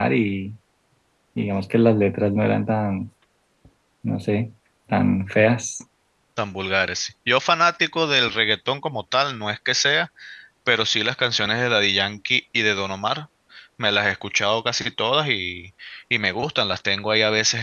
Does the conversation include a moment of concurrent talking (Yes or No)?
No